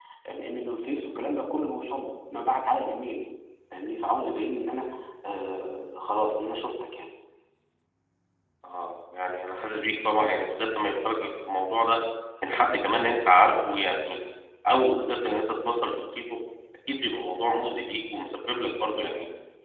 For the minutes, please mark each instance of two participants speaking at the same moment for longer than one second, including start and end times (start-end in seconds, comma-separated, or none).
none